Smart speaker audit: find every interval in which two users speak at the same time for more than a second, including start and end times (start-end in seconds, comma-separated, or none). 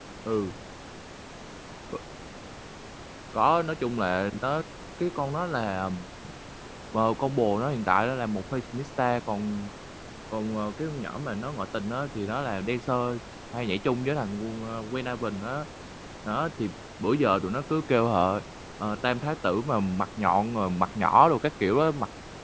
none